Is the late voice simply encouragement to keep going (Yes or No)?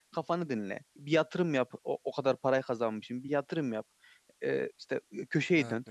Yes